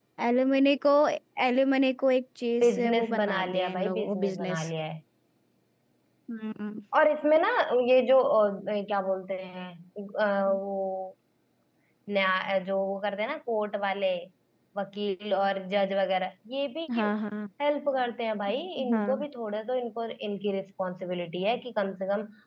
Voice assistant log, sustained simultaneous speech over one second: present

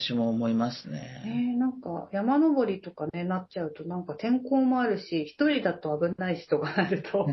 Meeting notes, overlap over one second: none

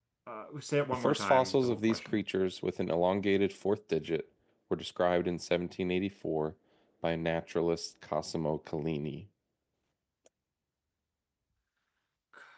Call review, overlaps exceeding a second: present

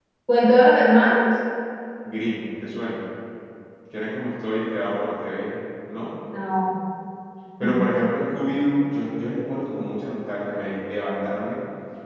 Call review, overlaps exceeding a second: none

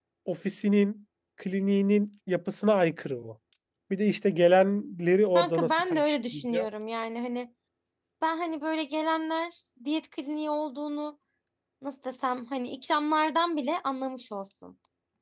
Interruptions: present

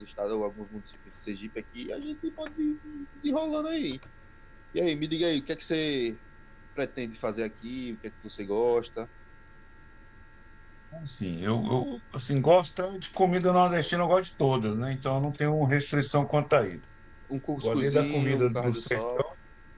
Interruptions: present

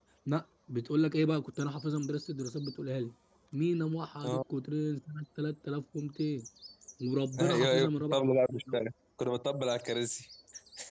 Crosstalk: present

